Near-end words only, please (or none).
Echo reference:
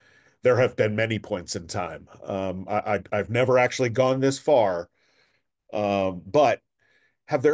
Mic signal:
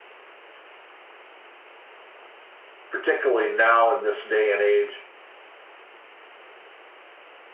particularly now in this day and age